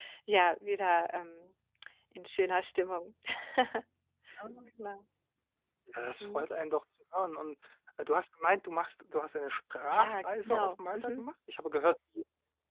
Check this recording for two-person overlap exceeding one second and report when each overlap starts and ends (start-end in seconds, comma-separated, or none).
9.9-11.3